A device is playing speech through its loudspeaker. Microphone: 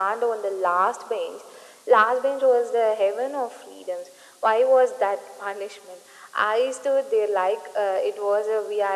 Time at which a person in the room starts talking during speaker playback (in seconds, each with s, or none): none